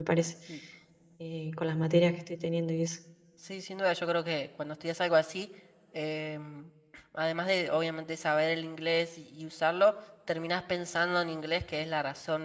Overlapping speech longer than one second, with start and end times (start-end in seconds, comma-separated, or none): none